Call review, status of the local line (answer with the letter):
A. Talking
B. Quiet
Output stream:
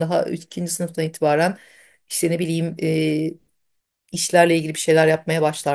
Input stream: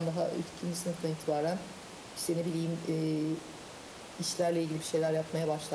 B